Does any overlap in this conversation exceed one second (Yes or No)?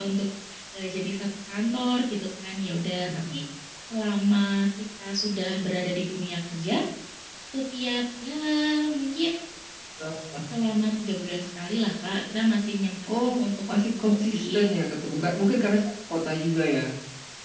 Yes